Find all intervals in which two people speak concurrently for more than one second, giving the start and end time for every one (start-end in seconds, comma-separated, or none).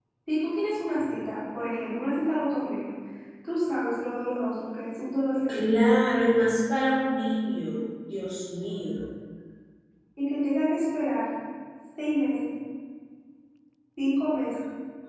none